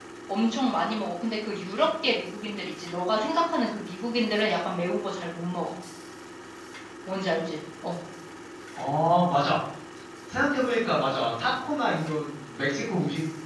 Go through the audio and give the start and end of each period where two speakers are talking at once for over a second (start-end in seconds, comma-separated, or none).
none